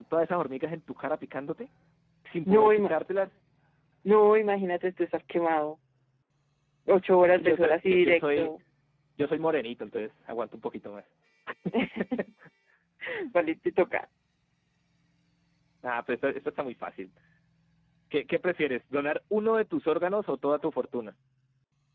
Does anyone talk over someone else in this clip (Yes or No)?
Yes